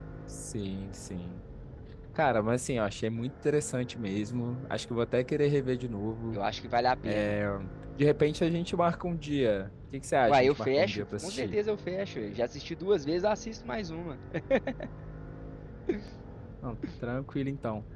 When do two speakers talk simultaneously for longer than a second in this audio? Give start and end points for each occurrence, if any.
10.3-11.5

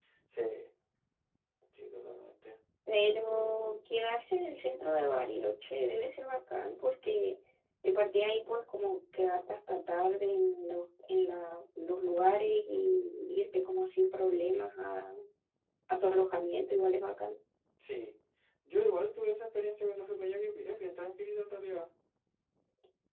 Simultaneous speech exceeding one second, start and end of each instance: none

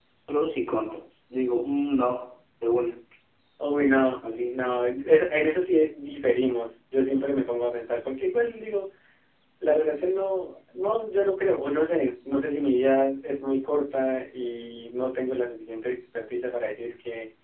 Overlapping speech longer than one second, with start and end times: none

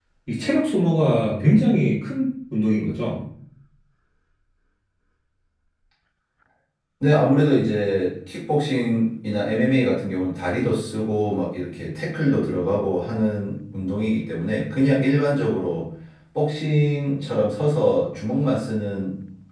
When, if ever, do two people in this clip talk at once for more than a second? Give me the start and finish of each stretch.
none

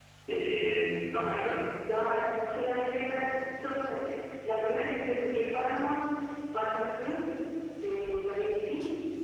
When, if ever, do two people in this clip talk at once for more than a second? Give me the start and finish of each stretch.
none

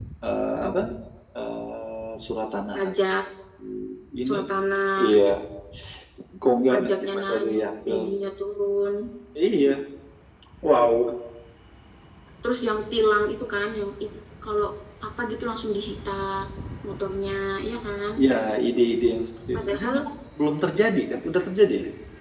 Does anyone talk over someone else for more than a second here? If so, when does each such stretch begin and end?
6.7-8.0

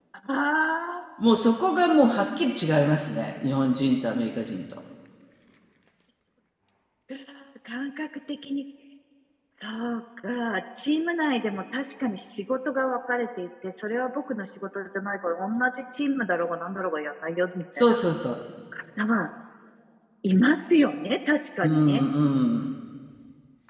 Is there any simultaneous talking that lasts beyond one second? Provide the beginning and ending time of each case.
none

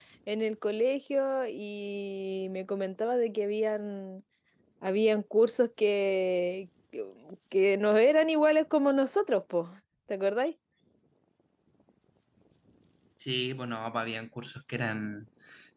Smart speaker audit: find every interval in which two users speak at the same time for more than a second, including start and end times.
none

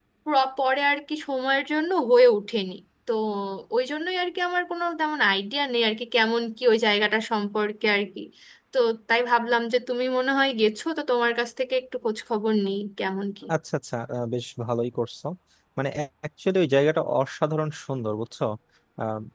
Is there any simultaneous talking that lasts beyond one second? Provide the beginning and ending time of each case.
none

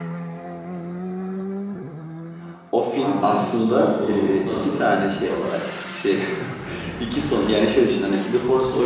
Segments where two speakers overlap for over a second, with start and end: 3.0-4.8

